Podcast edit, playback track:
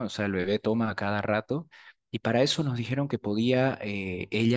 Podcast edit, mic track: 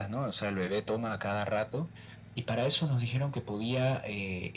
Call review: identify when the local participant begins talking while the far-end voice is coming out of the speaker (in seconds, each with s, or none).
none